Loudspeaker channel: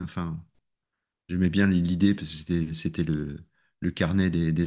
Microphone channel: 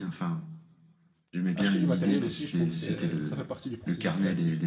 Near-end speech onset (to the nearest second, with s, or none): 2 s